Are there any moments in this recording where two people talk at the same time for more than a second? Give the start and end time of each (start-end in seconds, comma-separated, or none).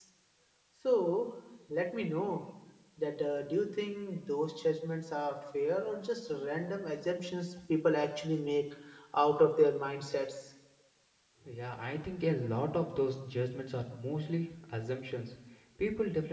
none